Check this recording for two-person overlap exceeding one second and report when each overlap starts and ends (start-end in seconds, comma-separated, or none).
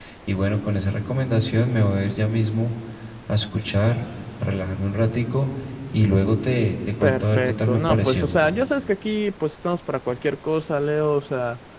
7.0-8.3